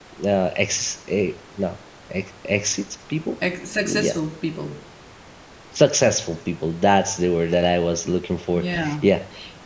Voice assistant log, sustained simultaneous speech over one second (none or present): none